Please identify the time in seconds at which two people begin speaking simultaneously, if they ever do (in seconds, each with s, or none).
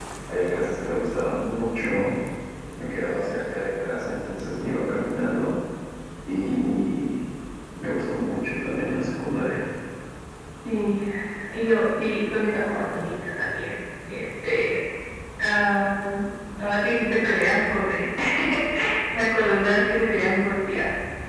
none